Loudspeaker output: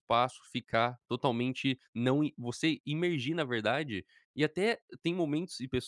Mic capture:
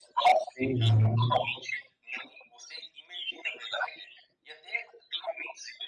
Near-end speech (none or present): present